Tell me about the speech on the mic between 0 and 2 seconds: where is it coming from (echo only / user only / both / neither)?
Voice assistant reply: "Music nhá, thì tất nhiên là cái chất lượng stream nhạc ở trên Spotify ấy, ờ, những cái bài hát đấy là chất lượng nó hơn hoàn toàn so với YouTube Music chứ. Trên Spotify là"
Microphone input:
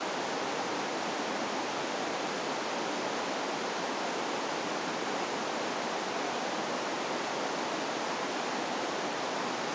neither